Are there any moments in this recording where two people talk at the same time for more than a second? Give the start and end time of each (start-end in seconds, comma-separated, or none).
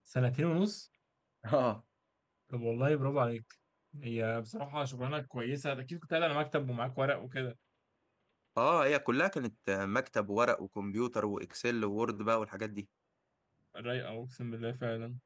none